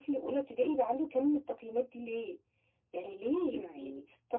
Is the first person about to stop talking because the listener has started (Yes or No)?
No